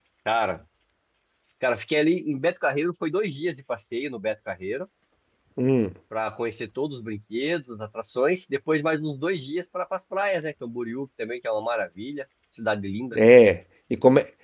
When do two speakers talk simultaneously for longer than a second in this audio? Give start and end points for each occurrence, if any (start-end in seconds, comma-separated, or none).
none